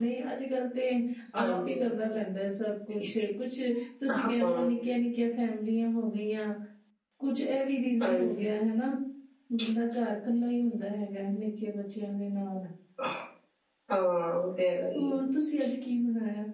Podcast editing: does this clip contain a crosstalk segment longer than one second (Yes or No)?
No